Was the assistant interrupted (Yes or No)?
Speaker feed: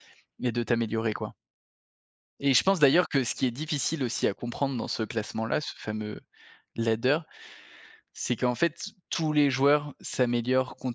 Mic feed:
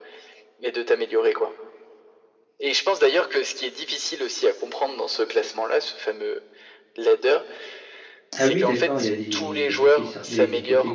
Yes